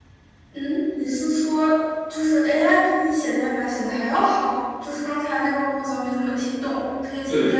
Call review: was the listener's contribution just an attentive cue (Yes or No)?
No